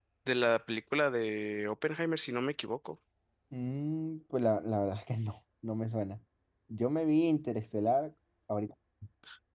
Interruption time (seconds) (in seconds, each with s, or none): none